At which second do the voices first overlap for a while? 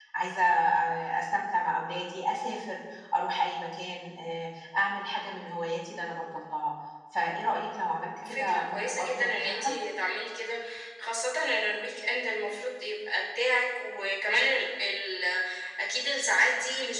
8.2 s

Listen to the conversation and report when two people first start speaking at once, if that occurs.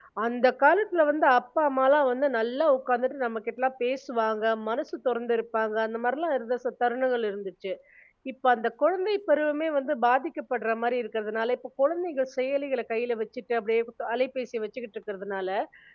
none

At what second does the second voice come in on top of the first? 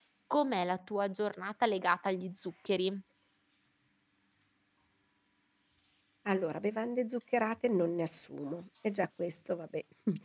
none

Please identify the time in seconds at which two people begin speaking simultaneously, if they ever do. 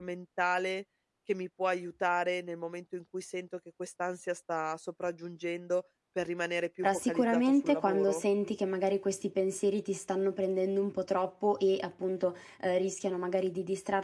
6.8 s

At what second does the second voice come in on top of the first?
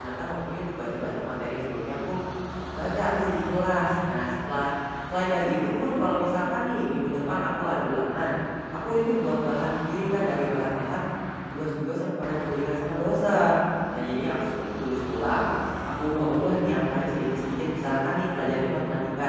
none

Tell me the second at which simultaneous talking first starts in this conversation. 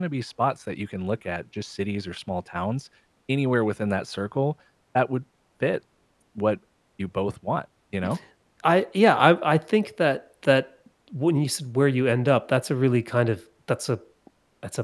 none

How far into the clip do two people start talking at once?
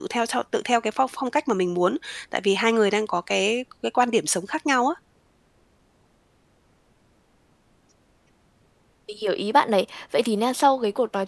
none

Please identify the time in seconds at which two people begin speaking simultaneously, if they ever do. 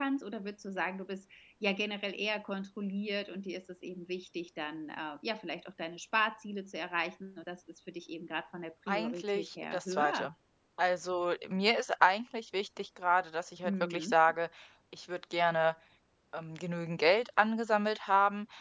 8.9 s

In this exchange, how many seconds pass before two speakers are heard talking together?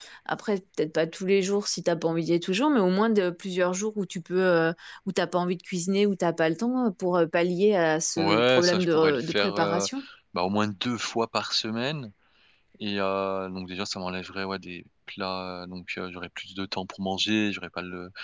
8.2 s

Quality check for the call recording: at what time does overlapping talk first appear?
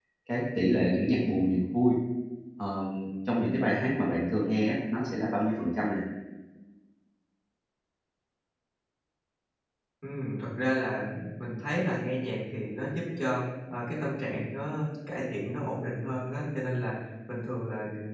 none

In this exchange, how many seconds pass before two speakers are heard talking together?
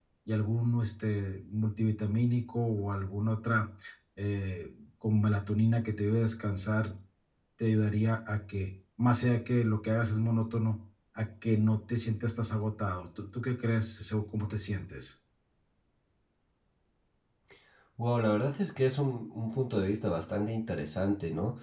none

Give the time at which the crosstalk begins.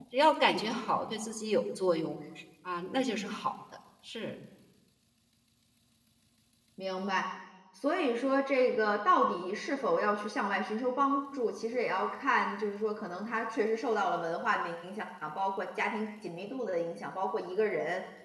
none

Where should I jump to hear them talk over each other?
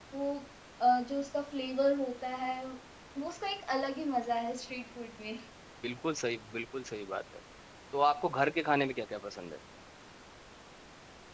none

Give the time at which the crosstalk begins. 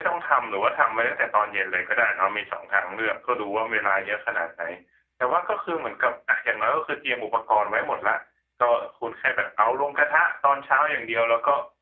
none

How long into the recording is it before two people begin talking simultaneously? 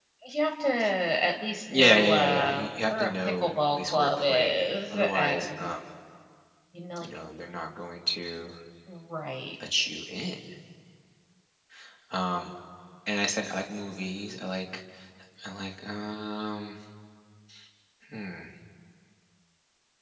1.7 s

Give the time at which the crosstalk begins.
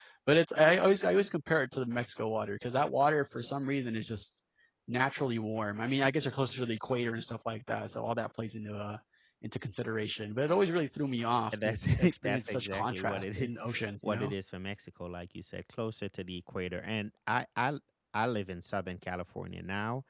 11.5 s

